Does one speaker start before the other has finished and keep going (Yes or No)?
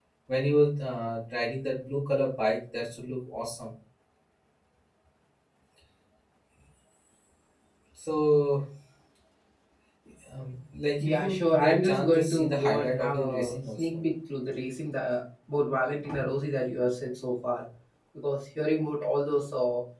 Yes